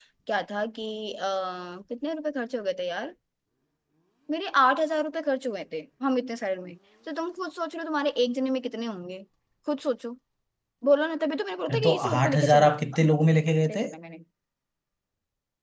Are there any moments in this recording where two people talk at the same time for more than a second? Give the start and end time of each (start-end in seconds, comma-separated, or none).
11.7-13.1